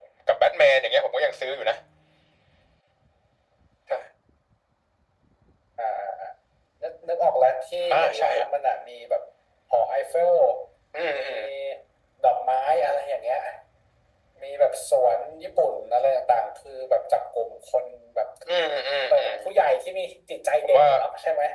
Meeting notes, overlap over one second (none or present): none